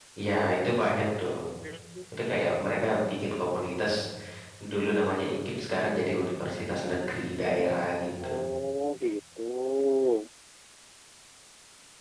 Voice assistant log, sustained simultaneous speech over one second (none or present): none